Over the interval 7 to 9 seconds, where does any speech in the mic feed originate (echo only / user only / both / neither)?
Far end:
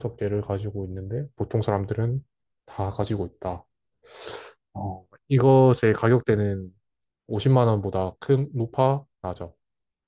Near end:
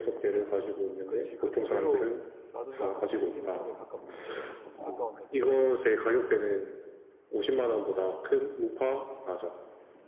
echo only